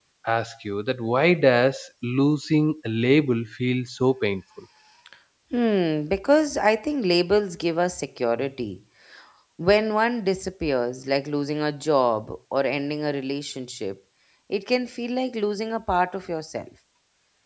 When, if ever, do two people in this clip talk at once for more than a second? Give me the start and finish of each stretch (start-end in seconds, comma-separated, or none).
none